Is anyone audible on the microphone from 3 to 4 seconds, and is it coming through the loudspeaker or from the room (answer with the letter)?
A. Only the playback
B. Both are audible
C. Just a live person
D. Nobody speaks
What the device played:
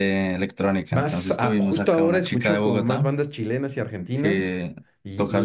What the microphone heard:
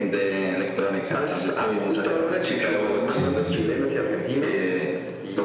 B